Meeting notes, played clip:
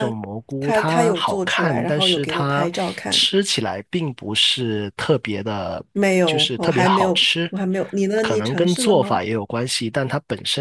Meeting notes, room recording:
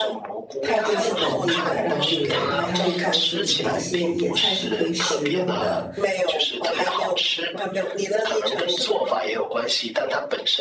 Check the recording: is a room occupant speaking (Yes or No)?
Yes